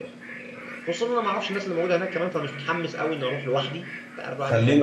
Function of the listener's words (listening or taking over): taking over